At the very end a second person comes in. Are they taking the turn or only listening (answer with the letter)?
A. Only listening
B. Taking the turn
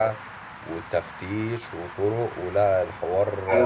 B